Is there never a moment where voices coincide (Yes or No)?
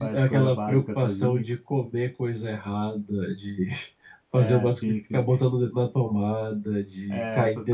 No